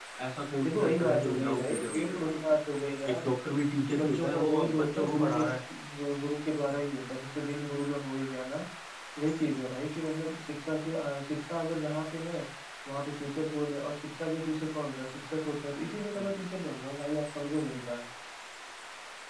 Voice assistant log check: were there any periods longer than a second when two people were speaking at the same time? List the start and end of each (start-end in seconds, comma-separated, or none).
0.6-2.6, 3.9-5.4